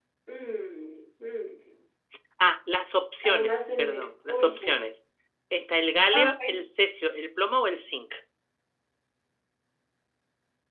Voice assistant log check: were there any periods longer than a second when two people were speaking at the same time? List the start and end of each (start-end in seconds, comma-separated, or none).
3.2-4.8